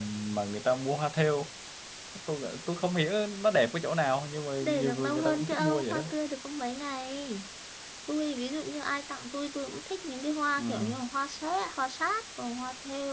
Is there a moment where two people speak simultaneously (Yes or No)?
Yes